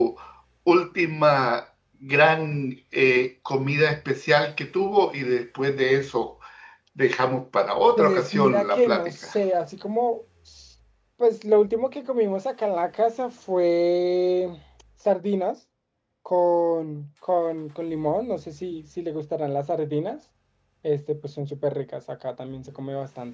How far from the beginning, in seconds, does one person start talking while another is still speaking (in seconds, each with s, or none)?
8.0 s